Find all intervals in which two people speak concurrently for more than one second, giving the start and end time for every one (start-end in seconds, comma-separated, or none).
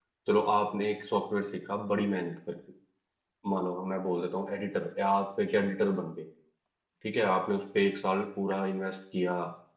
none